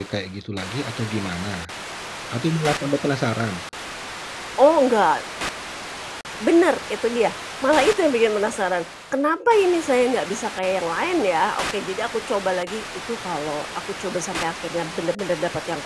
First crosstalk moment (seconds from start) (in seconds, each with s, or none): none